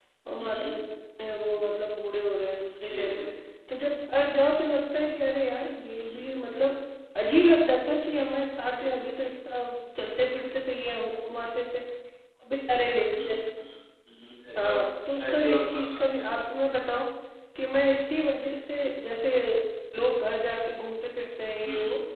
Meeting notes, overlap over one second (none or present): present